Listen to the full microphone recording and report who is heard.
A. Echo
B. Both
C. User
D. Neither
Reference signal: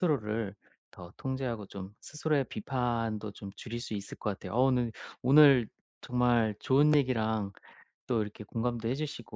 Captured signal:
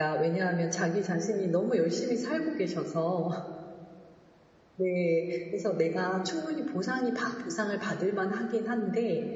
C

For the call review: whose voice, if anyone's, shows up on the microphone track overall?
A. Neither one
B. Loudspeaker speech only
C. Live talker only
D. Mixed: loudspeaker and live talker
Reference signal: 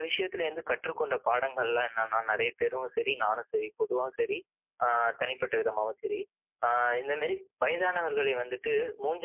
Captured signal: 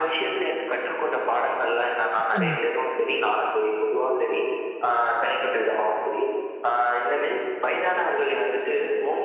D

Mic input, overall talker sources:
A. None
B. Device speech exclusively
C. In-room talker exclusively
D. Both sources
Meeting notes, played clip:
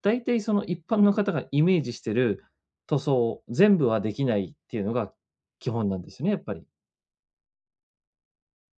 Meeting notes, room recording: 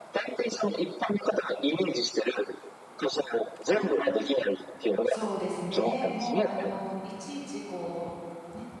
D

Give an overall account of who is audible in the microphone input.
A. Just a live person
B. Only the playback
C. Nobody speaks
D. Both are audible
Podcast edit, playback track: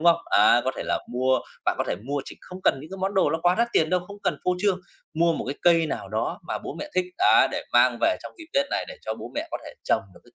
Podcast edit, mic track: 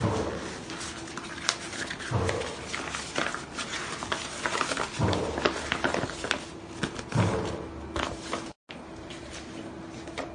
C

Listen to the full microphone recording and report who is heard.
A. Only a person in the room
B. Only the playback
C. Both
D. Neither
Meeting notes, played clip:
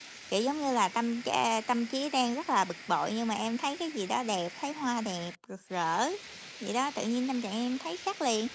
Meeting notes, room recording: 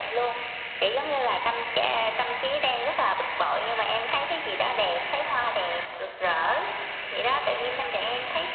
B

